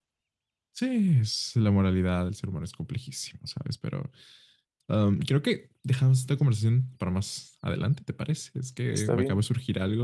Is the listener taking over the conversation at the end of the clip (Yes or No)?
No